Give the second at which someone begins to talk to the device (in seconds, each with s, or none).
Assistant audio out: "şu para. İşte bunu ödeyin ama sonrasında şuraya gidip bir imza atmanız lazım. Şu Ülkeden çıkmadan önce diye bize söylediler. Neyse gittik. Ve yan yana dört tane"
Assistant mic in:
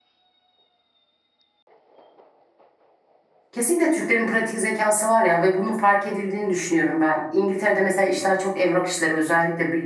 3.5 s